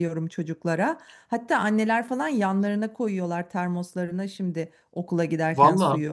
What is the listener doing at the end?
taking over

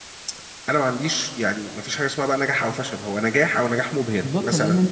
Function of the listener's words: taking over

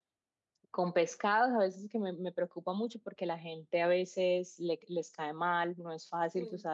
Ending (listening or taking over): listening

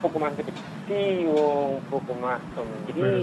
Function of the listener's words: listening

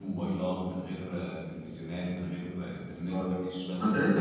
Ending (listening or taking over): taking over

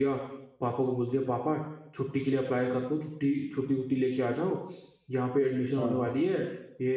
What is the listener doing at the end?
listening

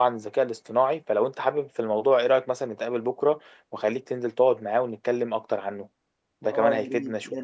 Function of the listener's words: taking over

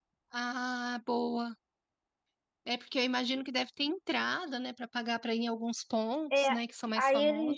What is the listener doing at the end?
taking over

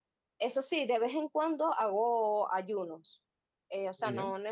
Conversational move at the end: listening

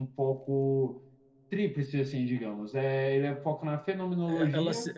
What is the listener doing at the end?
taking over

